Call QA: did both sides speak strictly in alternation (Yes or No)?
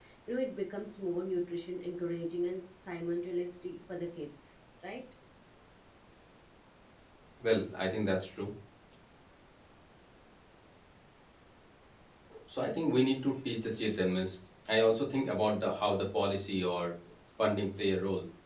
Yes